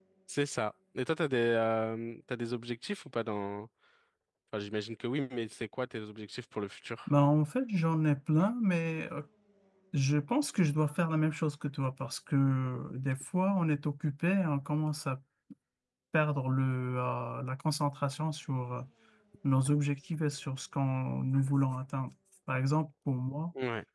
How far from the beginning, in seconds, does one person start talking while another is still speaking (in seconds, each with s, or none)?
none